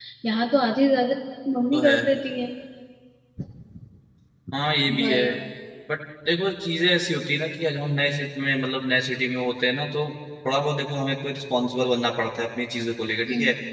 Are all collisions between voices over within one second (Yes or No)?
Yes